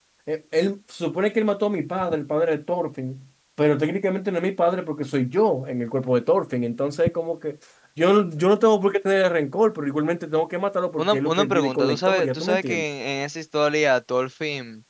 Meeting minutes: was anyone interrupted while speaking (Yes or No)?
Yes